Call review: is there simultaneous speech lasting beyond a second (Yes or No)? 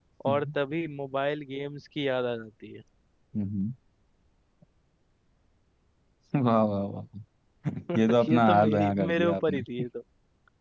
Yes